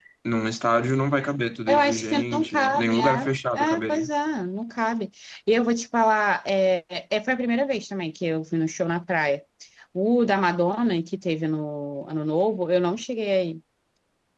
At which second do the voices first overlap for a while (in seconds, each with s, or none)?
1.7 s